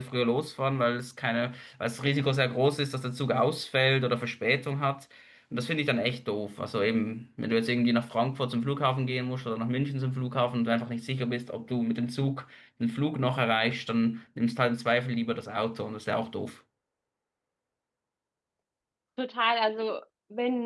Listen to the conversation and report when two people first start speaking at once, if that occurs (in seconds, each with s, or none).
none